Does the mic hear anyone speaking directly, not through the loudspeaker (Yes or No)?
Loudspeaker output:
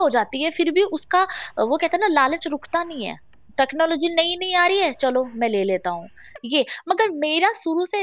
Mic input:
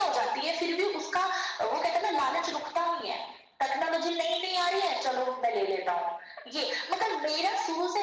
No